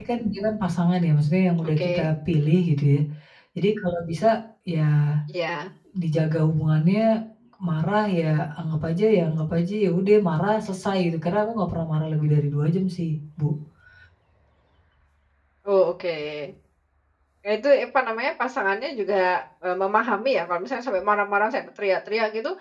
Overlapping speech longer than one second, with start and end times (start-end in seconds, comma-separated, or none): none